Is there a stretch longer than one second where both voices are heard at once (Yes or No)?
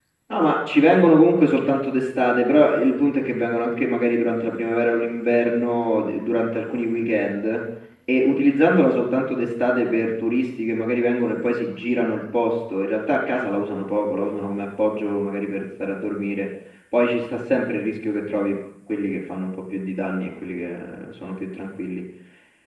No